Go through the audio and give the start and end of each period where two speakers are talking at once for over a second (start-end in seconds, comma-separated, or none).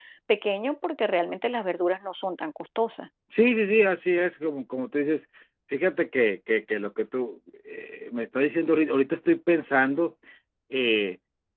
none